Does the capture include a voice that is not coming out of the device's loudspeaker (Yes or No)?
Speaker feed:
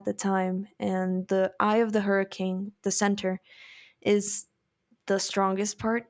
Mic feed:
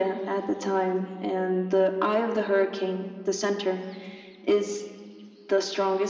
No